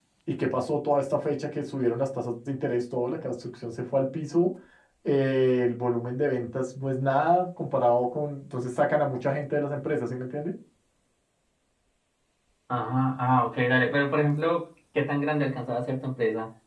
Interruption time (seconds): none

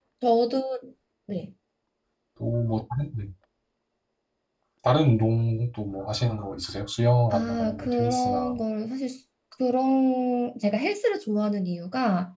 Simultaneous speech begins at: 7.3 s

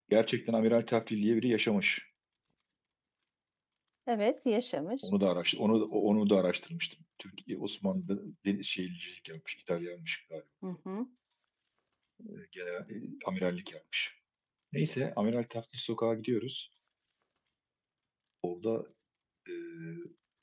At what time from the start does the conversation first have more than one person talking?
none

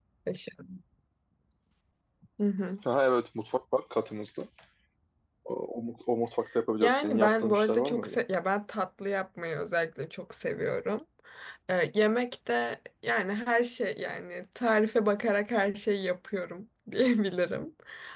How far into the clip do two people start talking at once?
6.8 s

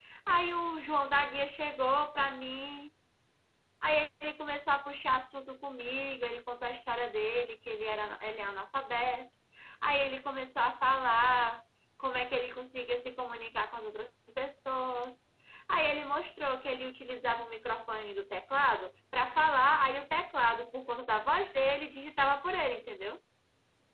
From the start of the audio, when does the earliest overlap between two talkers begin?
none

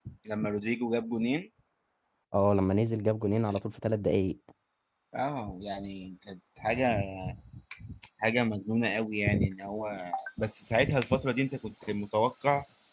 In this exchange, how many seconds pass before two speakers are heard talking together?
none

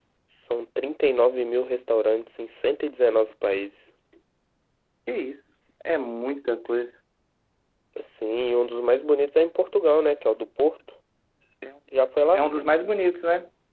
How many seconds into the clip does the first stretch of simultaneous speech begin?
none

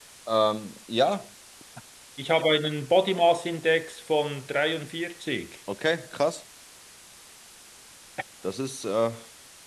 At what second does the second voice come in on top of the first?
none

